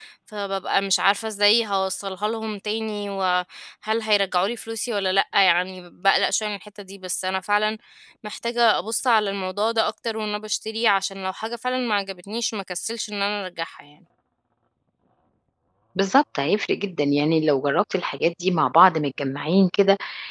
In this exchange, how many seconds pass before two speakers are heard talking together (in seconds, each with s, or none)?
none